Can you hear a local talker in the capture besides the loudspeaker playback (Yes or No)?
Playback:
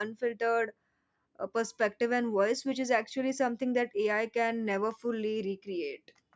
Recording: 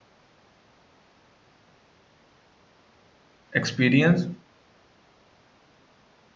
Yes